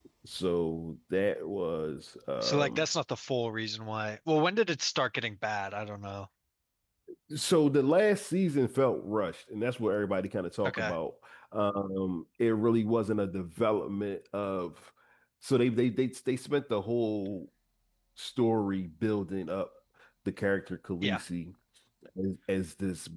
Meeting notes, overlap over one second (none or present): none